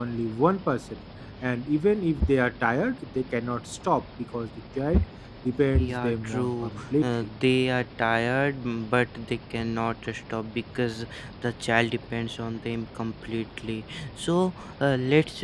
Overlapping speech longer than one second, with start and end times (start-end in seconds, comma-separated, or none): 5.8-7.3